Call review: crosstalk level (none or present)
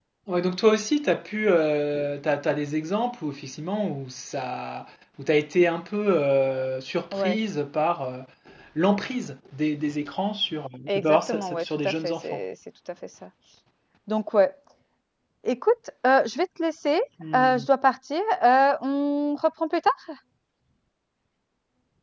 present